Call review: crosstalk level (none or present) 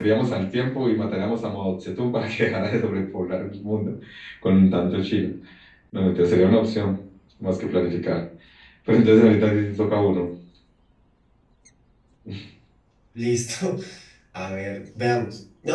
none